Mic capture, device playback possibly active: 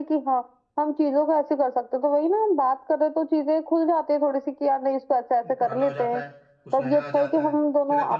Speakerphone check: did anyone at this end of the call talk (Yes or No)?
Yes